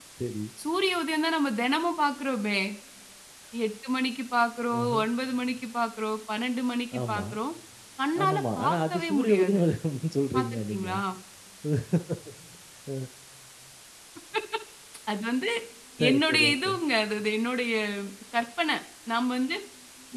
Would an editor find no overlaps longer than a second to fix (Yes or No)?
No